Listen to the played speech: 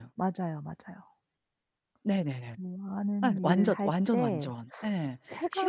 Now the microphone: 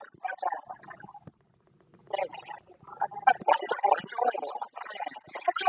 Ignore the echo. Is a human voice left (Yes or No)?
No